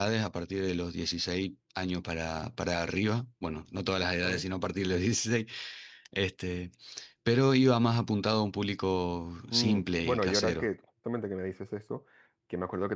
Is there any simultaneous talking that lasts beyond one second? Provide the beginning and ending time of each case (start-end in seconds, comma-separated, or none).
9.5-10.7